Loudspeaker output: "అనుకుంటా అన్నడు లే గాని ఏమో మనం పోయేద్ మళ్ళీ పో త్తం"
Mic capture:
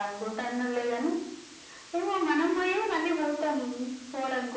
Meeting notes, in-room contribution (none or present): none